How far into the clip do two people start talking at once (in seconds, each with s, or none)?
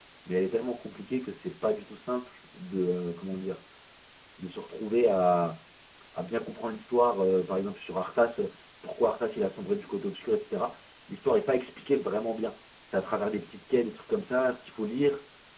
none